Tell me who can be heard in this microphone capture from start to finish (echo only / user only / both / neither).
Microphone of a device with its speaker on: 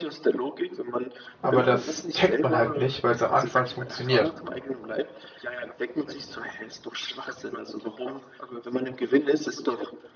both